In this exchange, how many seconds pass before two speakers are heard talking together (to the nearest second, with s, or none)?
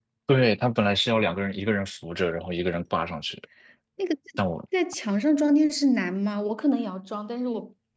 none